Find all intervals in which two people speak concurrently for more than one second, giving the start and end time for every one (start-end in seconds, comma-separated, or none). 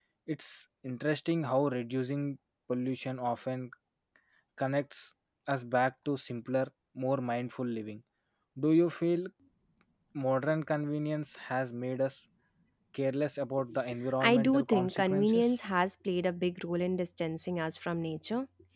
14.2-15.6